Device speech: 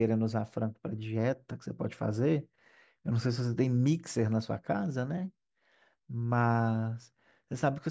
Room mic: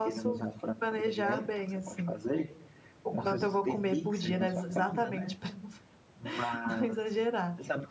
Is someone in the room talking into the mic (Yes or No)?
Yes